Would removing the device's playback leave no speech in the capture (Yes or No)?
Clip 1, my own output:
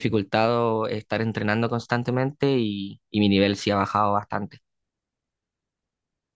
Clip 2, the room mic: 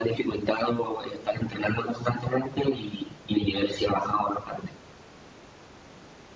Yes